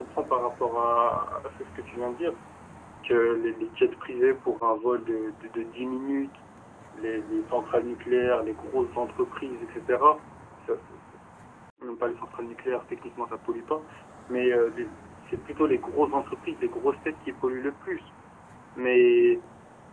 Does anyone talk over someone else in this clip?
No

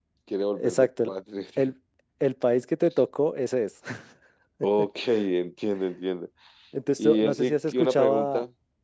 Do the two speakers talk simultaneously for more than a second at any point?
Yes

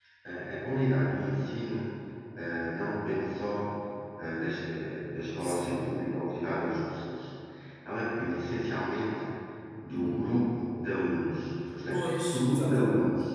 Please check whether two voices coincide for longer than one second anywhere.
Yes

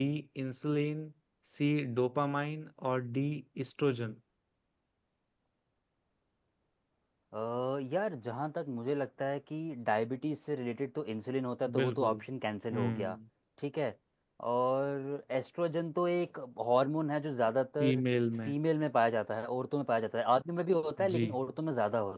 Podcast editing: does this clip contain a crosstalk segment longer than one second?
No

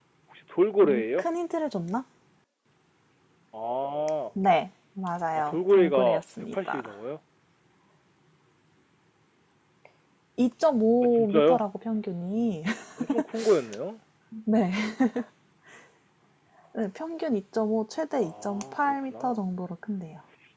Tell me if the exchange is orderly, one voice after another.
No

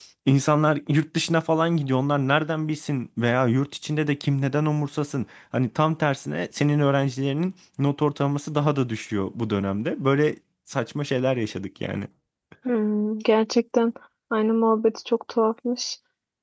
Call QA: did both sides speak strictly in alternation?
Yes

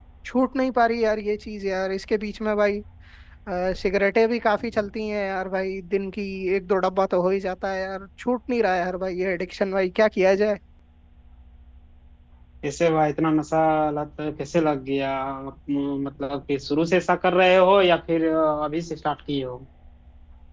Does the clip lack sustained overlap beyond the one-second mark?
Yes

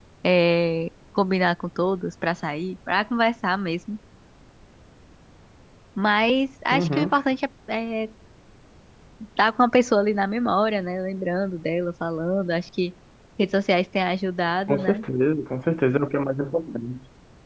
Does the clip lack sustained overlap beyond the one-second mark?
Yes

